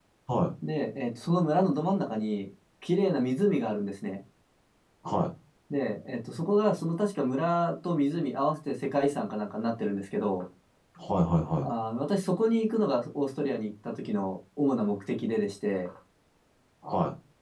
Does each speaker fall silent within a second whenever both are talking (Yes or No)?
Yes